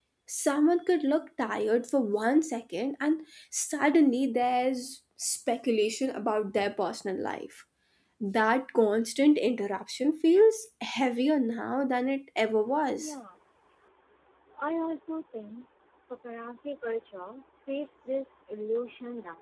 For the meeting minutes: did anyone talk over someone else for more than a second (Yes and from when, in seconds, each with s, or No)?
No